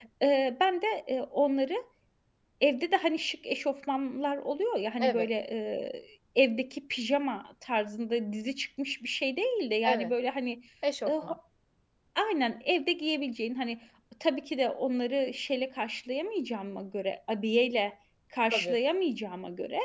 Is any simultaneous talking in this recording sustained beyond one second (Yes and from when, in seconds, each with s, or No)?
No